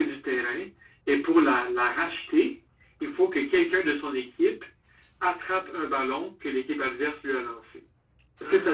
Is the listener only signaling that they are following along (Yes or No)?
No